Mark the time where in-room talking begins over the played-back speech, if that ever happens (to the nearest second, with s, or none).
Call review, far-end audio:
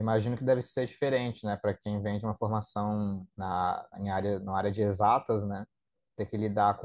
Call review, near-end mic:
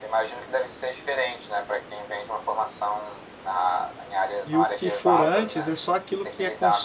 4 s